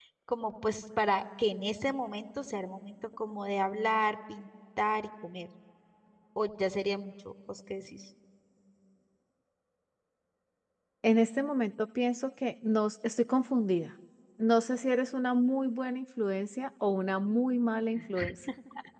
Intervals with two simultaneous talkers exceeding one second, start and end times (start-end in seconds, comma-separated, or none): none